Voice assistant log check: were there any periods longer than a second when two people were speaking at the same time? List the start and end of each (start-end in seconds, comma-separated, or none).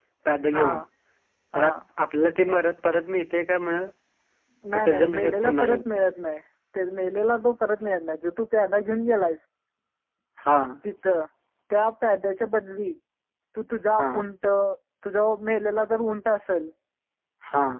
4.7-6.1